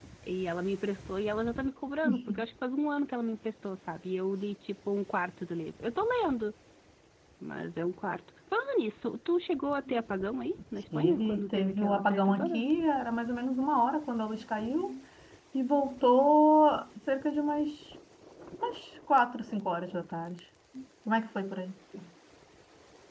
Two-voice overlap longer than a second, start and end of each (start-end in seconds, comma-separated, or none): 11.0-12.6